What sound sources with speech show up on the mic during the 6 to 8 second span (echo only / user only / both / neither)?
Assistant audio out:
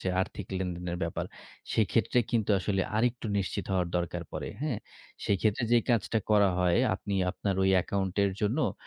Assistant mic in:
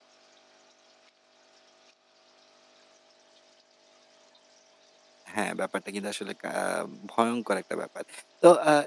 user only